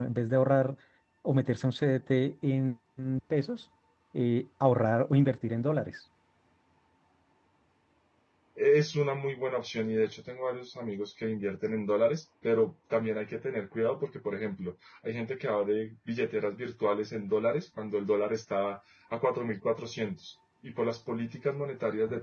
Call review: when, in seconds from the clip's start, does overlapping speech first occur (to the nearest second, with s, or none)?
none